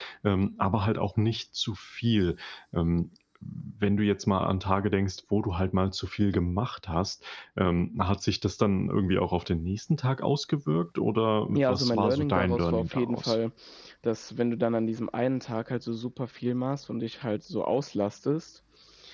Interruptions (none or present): present